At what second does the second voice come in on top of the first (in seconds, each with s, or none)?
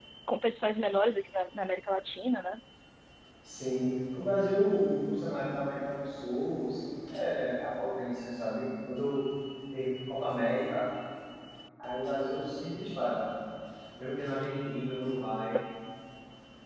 none